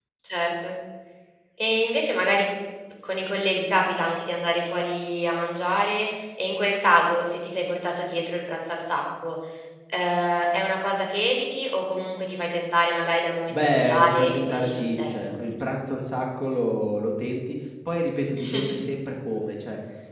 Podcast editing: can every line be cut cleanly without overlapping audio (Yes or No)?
No